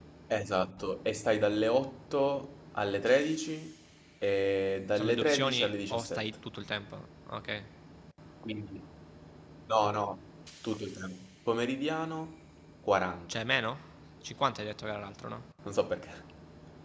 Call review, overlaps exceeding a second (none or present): present